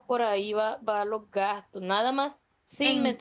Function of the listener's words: listening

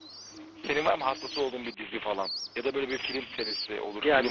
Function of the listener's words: taking over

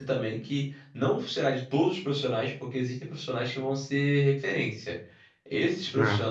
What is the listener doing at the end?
listening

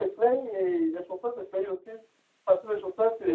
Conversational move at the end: listening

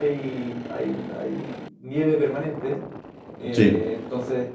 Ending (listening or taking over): listening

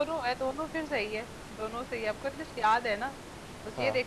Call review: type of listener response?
listening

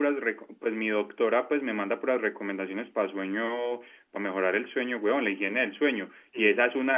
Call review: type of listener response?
listening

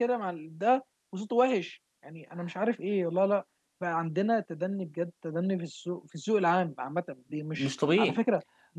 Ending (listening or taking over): listening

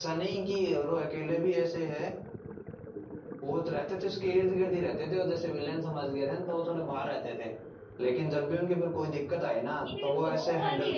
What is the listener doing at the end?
taking over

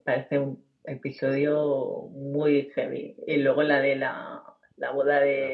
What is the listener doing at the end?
listening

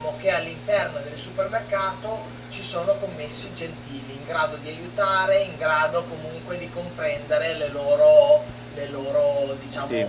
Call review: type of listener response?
taking over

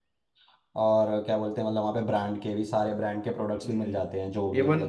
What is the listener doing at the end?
taking over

